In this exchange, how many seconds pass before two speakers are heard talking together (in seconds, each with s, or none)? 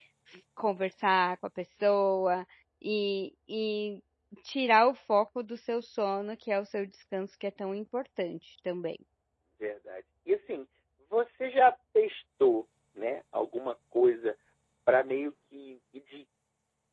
none